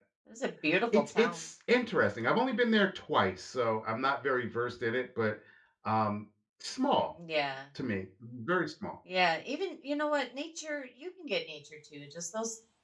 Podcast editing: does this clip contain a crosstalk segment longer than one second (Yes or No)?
No